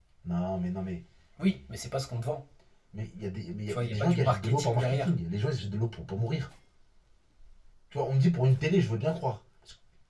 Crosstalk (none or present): present